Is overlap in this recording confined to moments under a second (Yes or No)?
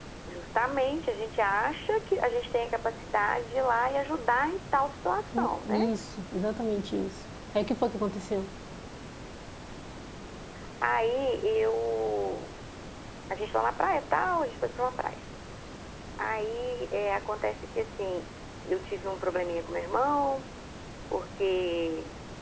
Yes